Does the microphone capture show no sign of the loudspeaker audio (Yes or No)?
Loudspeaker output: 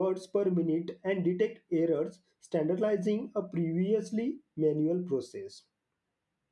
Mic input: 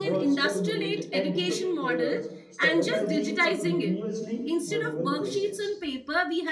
No